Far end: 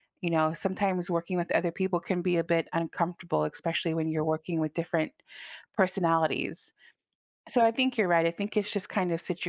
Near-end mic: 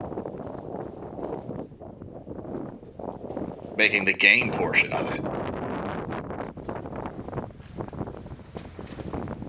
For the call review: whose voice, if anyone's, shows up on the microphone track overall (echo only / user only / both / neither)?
user only